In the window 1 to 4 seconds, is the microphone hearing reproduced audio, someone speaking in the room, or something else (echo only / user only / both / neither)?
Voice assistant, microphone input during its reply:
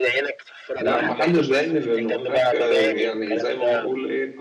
both